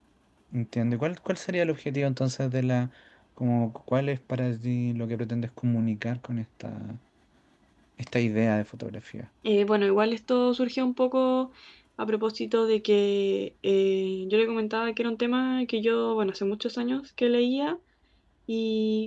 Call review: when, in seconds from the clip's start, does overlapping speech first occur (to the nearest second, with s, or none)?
none